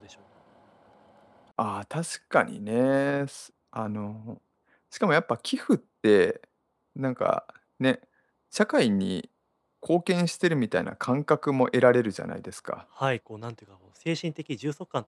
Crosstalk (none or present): none